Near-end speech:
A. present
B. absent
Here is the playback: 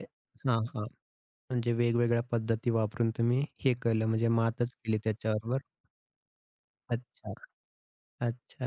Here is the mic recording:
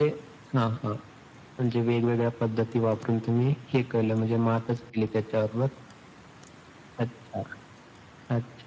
B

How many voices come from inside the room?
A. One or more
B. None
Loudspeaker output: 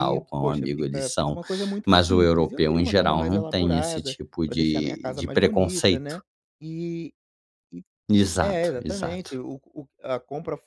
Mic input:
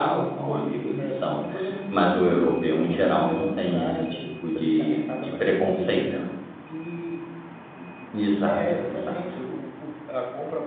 B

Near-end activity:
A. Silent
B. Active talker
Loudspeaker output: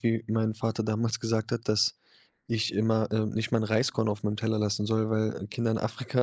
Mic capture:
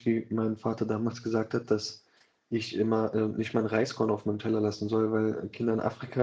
A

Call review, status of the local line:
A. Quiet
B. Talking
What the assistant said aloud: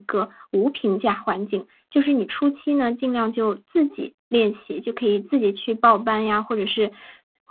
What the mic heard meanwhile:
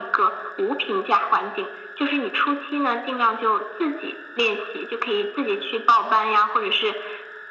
A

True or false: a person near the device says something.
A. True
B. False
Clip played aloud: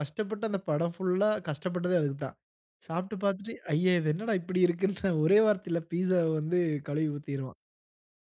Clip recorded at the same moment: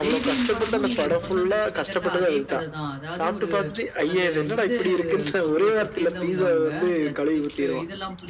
A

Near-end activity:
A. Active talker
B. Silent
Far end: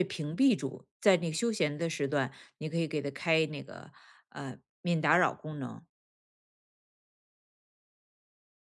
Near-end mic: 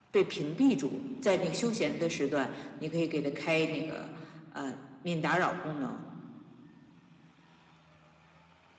B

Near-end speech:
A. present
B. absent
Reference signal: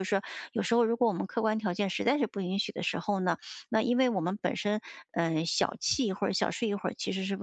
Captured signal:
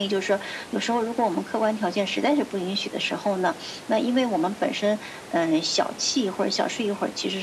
B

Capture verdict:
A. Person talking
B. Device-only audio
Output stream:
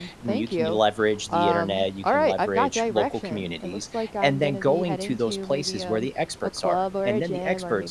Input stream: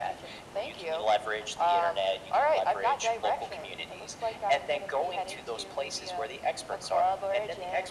B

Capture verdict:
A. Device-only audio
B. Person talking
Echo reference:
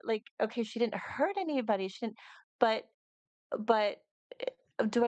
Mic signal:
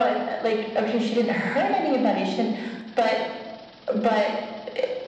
A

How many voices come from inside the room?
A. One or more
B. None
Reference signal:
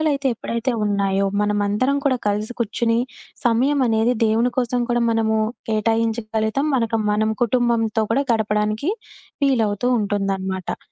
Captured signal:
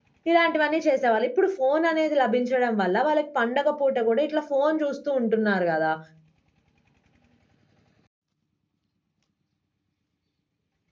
A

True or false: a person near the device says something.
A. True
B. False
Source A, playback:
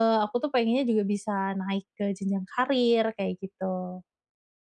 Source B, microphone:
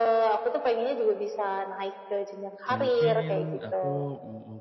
A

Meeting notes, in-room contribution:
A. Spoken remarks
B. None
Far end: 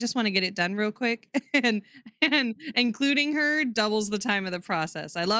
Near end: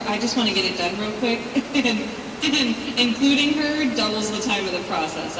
B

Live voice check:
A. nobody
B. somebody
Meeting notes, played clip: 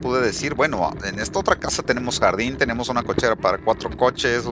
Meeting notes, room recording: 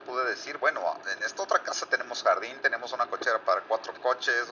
A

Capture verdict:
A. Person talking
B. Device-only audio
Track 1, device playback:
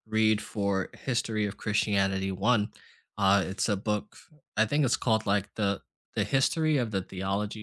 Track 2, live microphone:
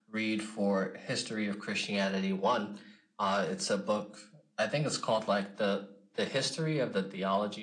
B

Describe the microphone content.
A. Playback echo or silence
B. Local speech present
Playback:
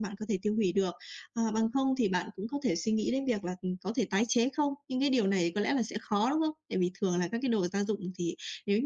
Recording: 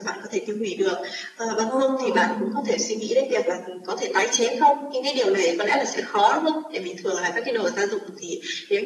B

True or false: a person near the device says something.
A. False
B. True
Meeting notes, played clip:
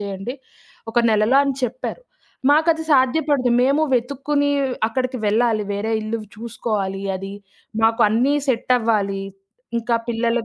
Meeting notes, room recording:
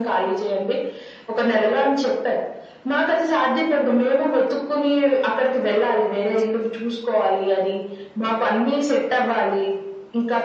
A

